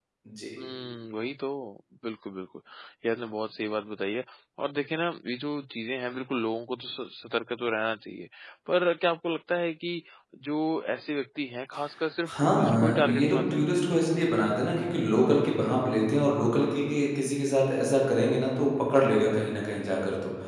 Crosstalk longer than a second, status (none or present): present